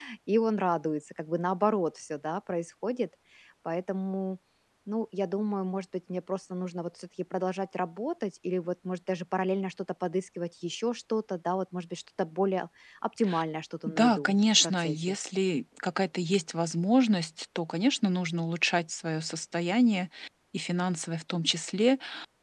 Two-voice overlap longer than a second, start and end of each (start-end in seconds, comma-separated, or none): 13.9-15.2